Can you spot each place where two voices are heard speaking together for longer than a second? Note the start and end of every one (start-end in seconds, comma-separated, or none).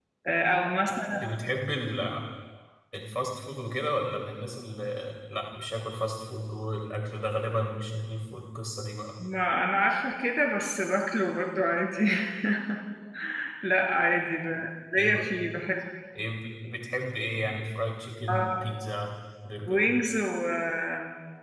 none